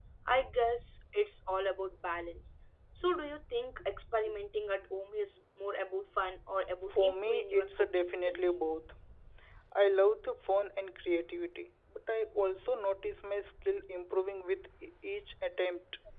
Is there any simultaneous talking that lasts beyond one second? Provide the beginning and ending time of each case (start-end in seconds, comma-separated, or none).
6.9-8.5